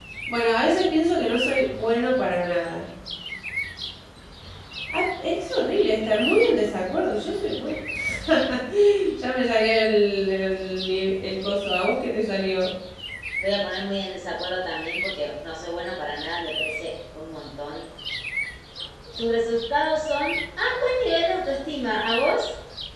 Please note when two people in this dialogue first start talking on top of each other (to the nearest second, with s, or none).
none